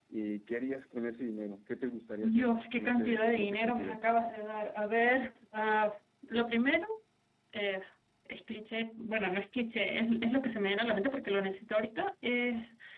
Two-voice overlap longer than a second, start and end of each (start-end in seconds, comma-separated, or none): 2.2-4.0